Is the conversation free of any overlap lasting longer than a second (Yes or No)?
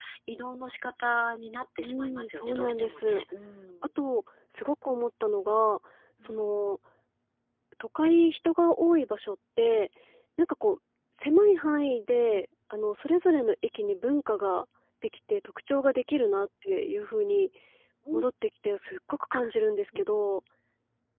No